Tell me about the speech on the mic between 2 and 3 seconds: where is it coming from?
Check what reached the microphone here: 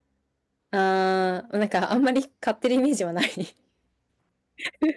user only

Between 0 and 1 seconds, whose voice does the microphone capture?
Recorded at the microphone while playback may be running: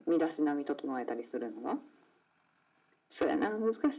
echo only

